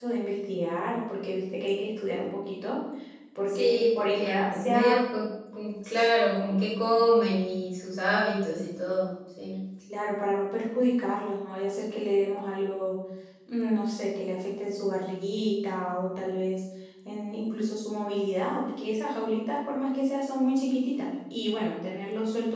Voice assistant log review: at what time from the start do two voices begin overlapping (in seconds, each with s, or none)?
3.5 s